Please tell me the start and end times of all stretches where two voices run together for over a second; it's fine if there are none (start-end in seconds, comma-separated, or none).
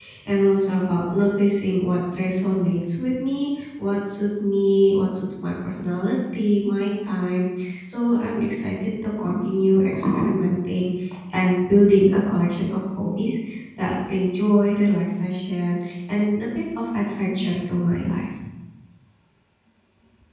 none